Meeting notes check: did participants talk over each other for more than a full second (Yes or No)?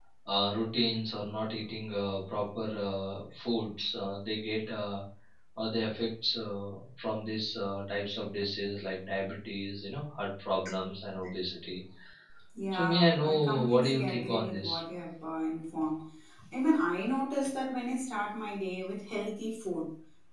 Yes